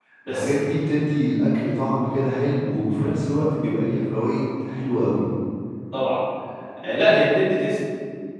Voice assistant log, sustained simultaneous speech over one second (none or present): none